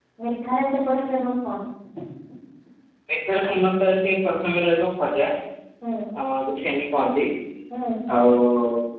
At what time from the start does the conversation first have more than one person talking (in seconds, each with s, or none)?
none